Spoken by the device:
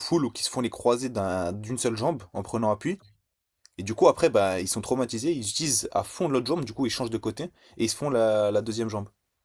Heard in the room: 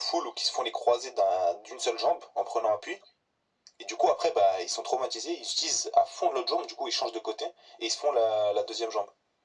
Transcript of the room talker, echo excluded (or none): none